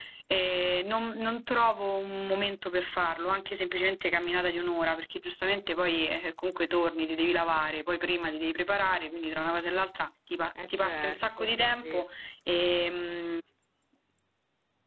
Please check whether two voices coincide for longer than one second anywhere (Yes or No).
Yes